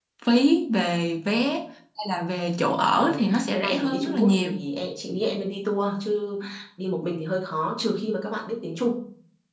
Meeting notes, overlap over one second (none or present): present